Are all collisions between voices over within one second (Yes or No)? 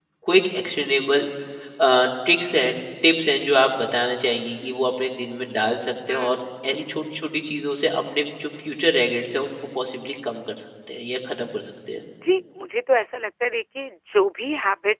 Yes